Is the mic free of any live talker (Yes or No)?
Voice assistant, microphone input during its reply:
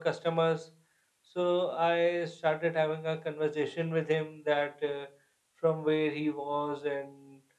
Yes